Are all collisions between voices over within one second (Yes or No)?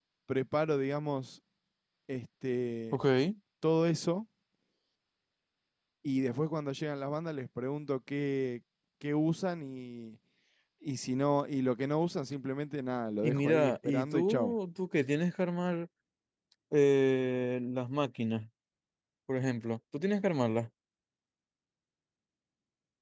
No